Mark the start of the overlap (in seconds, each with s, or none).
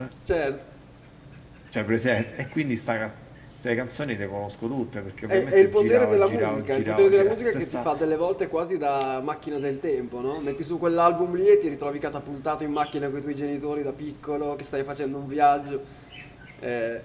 5.3 s